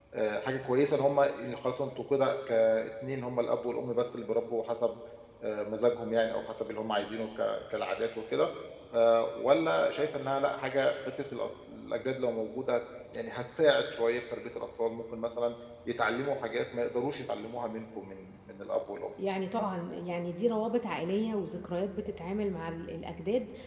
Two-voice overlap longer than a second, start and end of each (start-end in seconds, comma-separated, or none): none